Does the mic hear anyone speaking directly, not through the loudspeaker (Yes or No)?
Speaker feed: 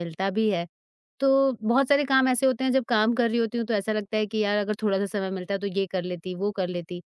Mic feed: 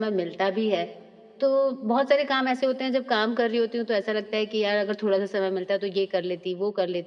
No